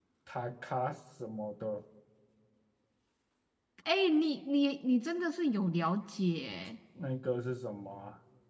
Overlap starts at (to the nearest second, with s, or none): none